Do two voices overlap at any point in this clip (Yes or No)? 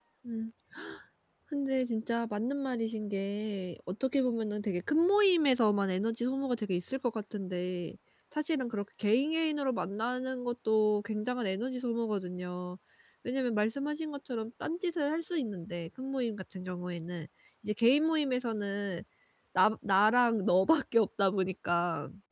No